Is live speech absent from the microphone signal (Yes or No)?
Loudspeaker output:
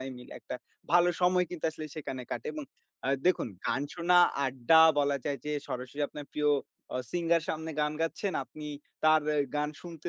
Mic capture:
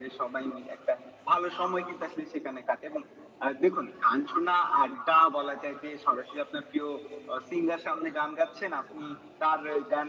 Yes